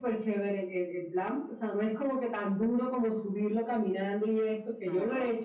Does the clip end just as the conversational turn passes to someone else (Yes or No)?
No